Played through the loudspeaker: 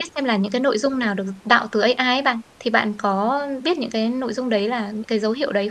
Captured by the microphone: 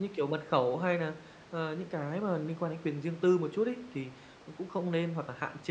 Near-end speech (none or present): present